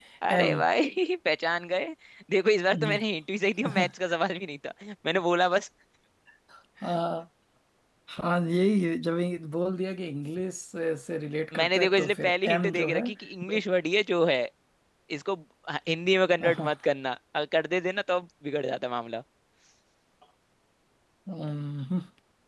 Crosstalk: present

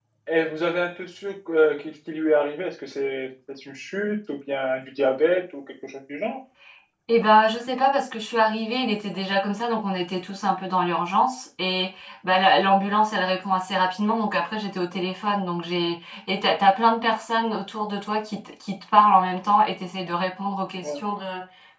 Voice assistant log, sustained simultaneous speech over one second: none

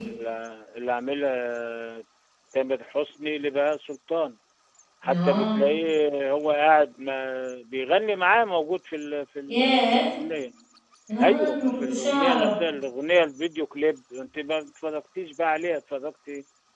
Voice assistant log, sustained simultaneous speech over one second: present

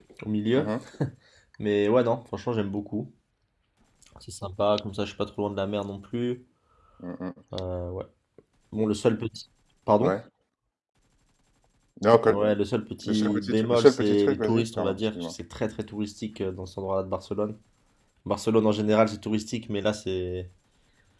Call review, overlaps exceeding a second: present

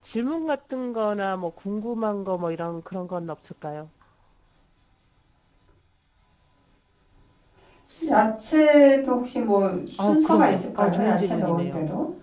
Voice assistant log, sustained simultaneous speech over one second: present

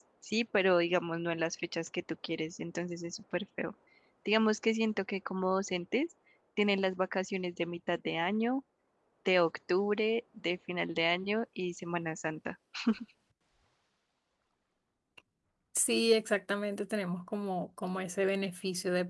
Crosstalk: none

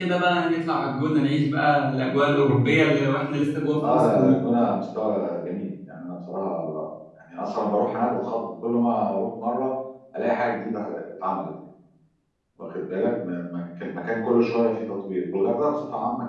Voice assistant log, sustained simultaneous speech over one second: none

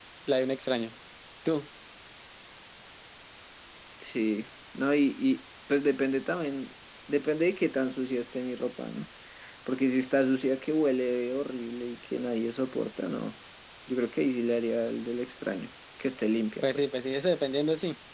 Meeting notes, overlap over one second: none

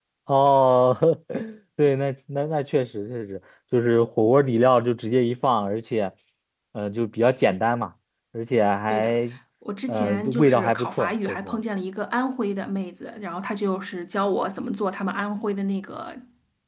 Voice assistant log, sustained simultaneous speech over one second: present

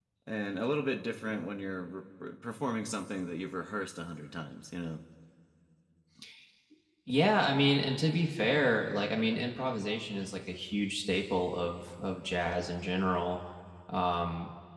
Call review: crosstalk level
none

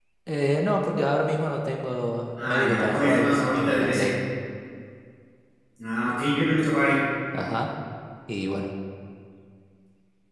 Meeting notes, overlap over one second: present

